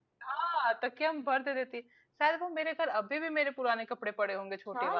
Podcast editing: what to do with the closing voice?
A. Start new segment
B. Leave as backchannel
A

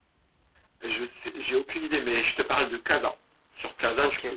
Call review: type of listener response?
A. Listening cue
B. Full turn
A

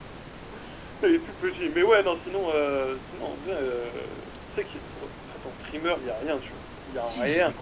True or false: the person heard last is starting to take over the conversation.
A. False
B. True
B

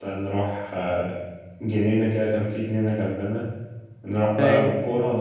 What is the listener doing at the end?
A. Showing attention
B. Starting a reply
A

